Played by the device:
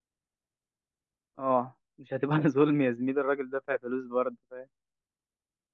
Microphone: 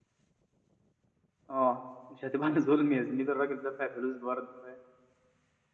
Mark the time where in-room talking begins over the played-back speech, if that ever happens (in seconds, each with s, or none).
none